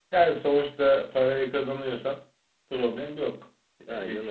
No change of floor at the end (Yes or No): Yes